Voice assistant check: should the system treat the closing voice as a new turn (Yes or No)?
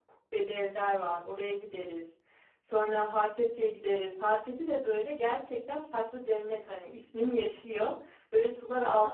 No